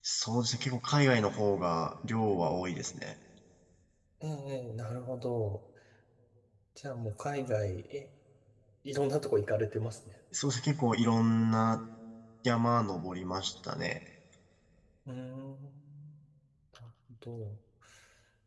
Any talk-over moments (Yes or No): No